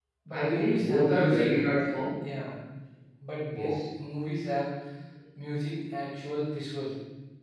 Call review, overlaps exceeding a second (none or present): present